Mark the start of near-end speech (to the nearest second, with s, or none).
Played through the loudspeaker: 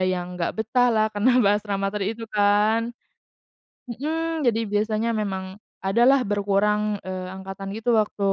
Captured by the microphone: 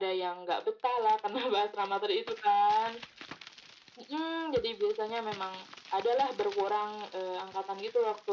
none